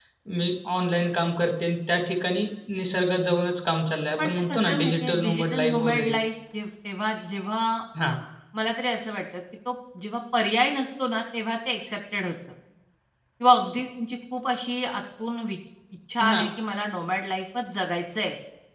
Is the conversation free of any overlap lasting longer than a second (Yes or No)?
No